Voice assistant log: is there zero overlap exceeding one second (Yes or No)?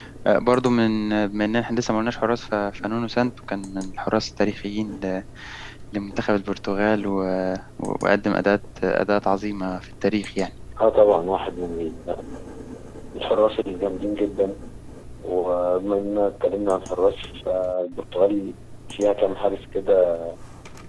Yes